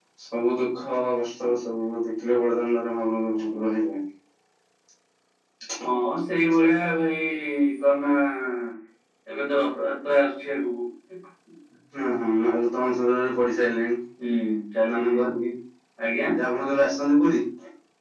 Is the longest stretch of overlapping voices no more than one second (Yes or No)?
Yes